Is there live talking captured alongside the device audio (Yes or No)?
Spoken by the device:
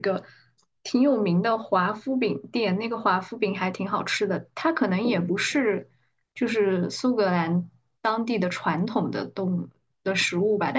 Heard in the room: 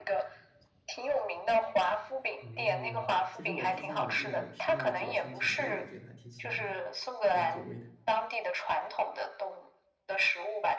Yes